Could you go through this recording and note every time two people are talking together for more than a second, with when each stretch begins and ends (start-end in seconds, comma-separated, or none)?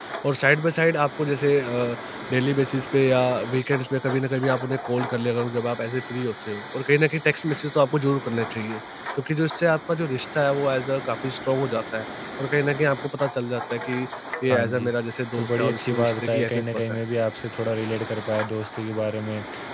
15.3-17.0